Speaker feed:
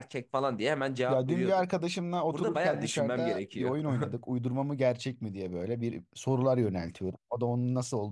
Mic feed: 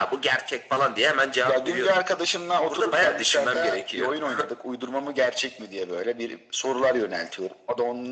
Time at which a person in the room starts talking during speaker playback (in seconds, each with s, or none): none